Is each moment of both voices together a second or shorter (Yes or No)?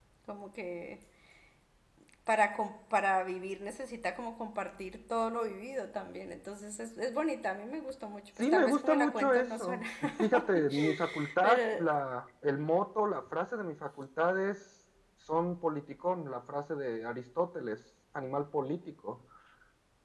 No